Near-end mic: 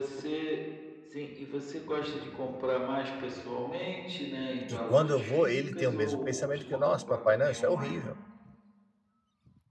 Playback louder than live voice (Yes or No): No